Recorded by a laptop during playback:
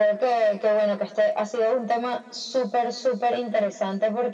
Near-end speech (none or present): none